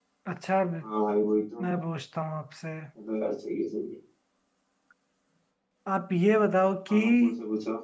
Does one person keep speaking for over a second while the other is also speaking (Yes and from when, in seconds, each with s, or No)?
No